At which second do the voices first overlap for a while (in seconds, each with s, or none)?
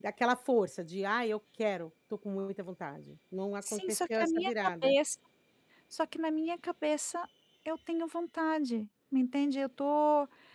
3.6 s